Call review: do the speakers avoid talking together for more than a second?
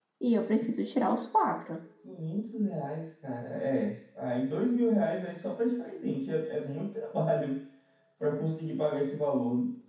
Yes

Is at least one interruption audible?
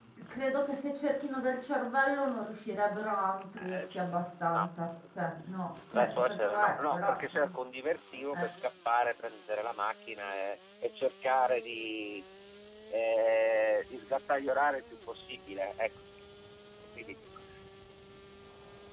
Yes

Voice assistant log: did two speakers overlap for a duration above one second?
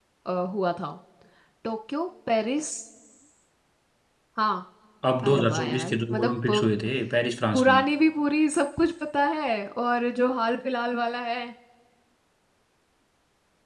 Yes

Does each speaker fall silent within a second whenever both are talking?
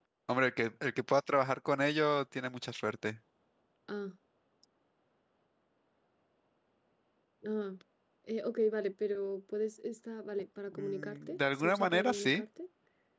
No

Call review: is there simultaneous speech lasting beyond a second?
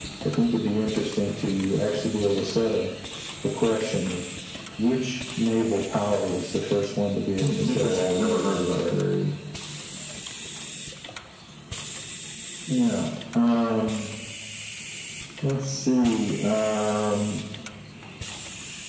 Yes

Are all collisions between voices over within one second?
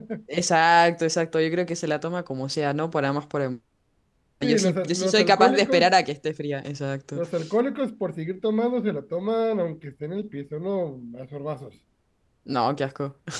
No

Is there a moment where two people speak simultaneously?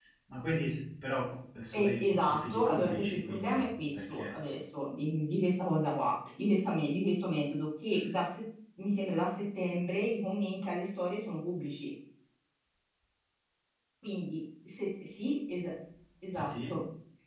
Yes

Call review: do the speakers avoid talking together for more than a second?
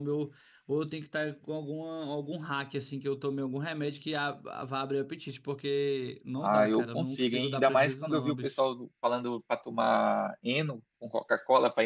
No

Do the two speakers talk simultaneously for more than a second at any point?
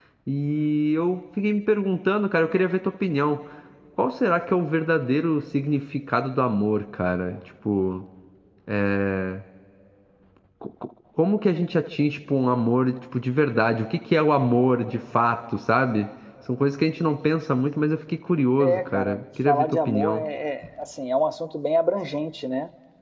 Yes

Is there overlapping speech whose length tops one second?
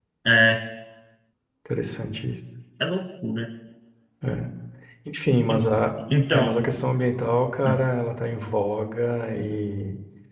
No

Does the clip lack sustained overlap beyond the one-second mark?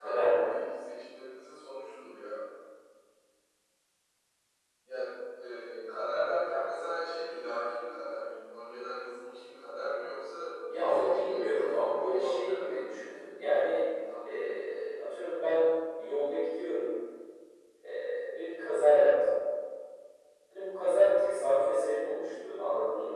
No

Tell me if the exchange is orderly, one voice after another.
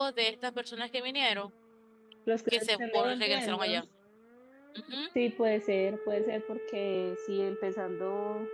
No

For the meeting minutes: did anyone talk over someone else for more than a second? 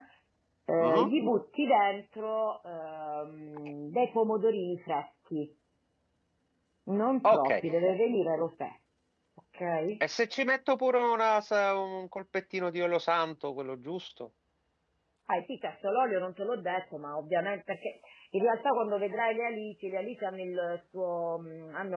No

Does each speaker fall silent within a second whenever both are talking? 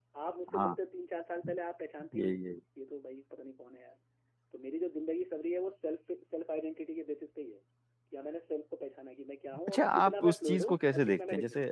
No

